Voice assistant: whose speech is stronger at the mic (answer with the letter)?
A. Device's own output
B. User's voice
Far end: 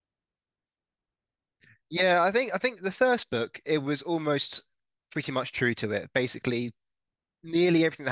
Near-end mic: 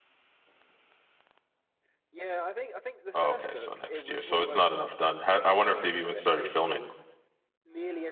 B